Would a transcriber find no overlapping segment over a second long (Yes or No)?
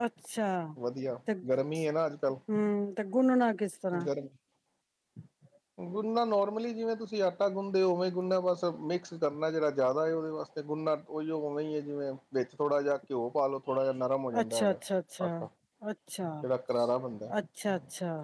Yes